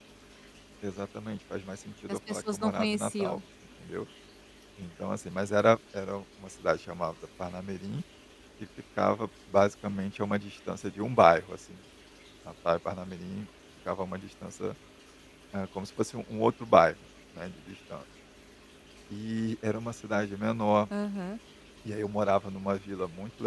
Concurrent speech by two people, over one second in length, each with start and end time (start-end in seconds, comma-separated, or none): 2.1-3.4